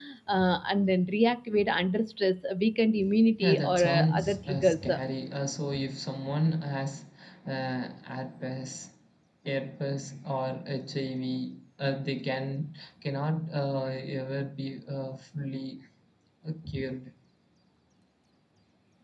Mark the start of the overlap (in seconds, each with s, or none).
3.4 s